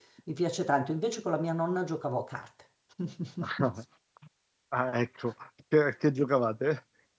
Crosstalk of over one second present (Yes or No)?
No